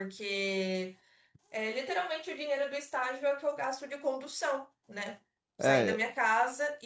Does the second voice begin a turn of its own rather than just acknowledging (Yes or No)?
No